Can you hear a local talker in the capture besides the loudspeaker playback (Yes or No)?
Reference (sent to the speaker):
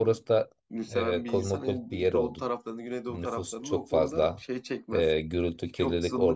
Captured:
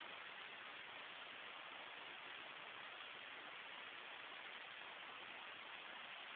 No